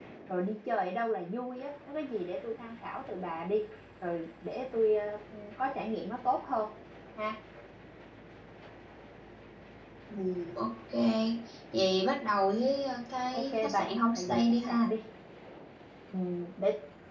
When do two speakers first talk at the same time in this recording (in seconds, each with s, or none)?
13.3 s